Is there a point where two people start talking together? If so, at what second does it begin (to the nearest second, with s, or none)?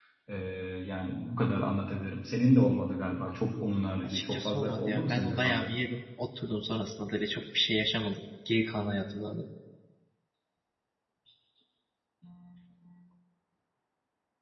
4 s